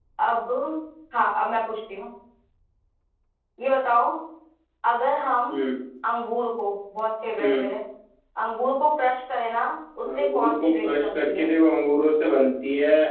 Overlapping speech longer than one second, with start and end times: 10.2-11.5

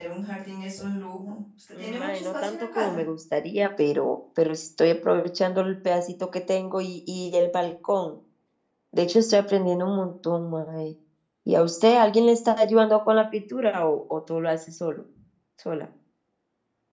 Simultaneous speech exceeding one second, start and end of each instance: 1.8-3.0

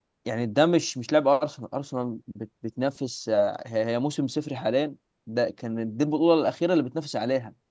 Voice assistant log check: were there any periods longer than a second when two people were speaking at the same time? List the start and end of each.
none

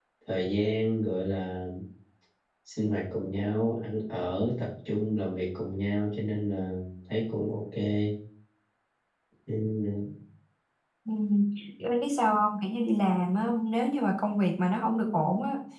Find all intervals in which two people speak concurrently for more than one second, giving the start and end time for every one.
none

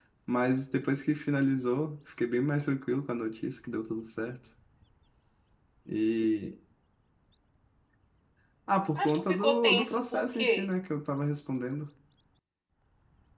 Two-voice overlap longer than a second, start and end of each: 9.0-10.7

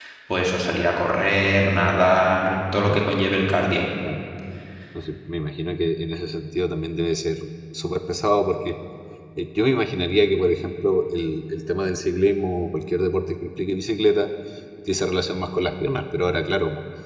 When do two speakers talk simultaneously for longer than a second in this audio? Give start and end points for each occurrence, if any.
none

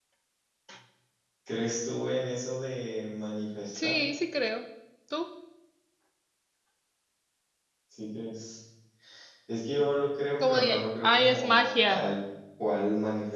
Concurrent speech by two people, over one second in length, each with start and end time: 10.4-12.0

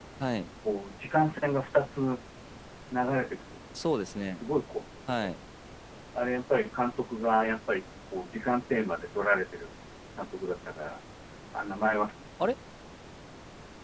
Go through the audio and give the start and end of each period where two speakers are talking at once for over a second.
none

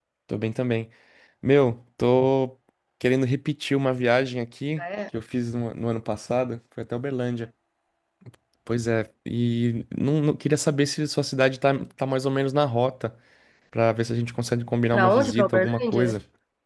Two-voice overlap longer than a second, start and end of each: 14.9-16.2

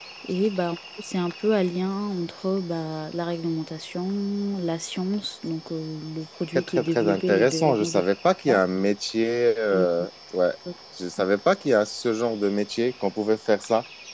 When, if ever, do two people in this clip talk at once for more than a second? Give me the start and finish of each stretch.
6.5-8.0

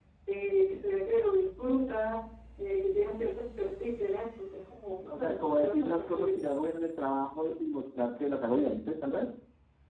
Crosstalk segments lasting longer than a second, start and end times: 5.1-6.4

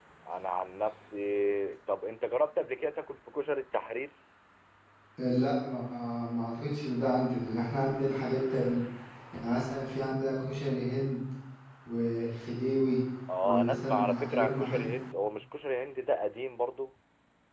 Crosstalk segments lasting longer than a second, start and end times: 13.4-14.9

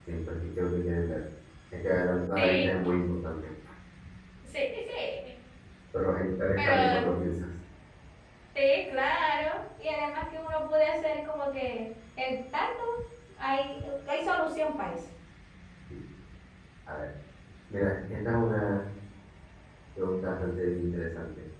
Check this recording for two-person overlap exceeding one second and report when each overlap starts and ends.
none

